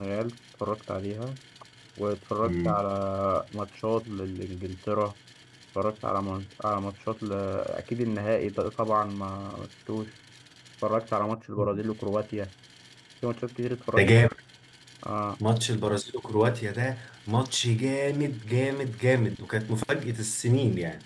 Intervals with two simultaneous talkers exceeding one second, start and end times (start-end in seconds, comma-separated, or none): none